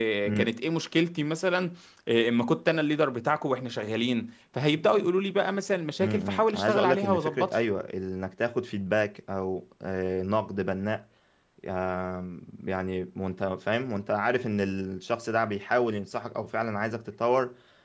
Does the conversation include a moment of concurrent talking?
Yes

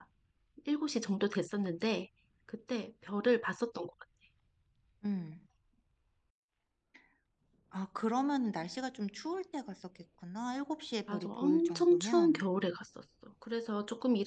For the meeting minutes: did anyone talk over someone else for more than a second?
Yes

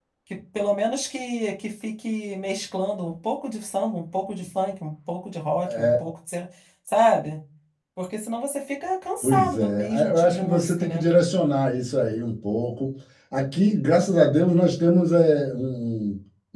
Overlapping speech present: Yes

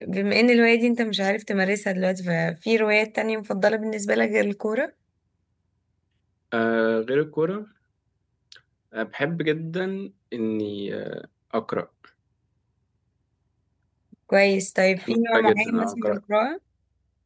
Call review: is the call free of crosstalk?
No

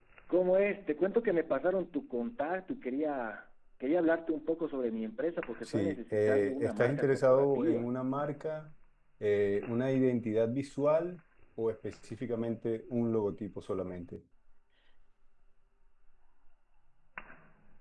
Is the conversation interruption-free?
No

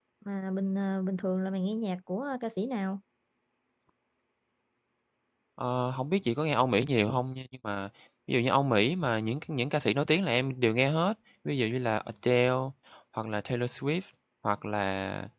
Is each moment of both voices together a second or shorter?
Yes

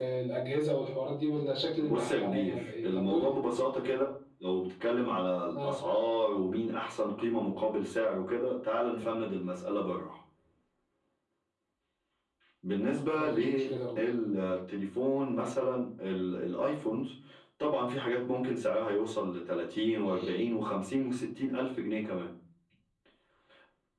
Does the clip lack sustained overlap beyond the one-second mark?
No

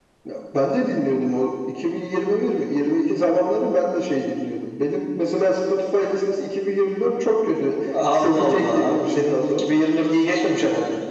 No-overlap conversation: No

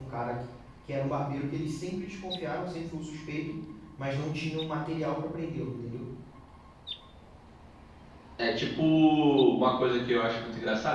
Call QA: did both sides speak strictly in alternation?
Yes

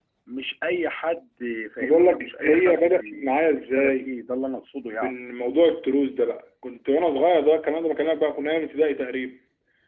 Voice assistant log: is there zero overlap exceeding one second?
No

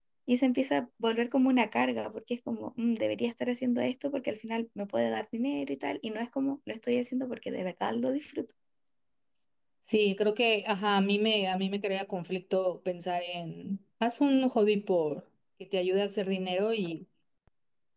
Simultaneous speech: No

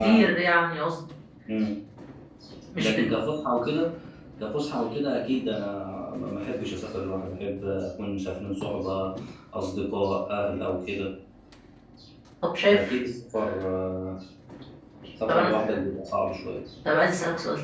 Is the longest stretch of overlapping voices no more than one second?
Yes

